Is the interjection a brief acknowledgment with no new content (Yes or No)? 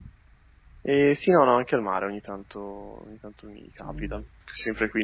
Yes